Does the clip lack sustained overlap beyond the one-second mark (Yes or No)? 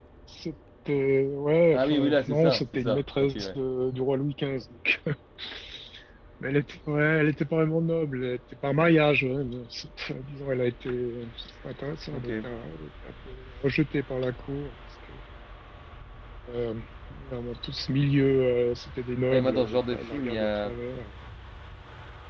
No